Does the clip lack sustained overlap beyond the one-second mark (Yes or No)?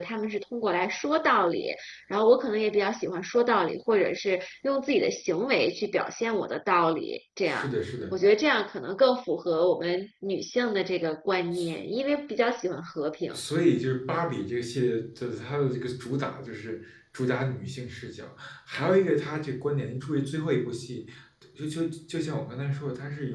Yes